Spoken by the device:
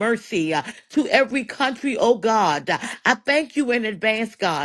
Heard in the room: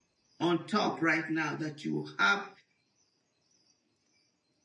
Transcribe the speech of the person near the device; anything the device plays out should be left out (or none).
on top right now that you will have